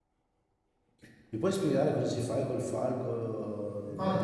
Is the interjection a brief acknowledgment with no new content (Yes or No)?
No